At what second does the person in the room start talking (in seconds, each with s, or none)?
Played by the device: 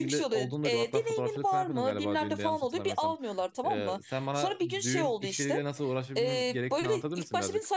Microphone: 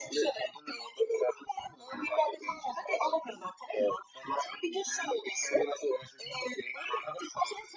none